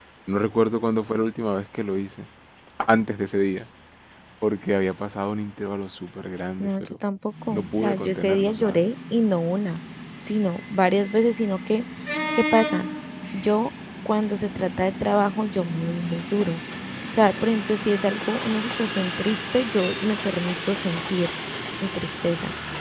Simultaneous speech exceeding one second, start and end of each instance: 7.5-8.8

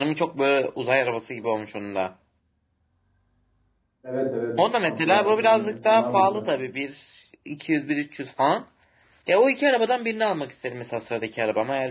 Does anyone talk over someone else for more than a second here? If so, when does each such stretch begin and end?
4.8-6.5

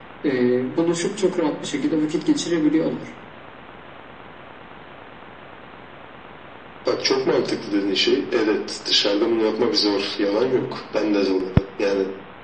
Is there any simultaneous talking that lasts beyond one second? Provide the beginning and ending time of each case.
none

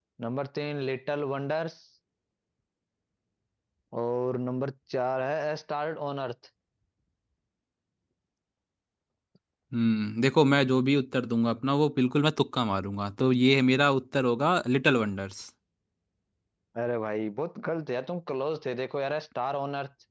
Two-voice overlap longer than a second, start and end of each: none

